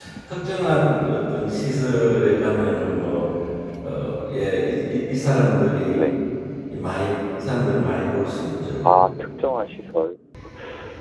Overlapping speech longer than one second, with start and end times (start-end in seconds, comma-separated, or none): none